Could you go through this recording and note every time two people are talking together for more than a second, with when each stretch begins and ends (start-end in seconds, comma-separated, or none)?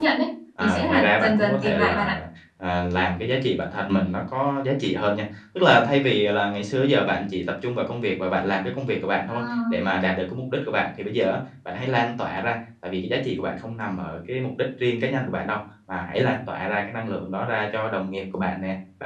0.6-2.1